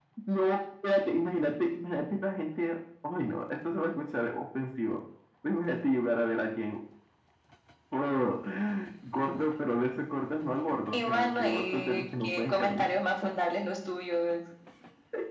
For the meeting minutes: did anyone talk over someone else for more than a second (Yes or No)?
Yes